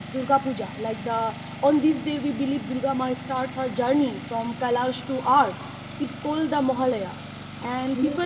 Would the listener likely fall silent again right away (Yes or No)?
Yes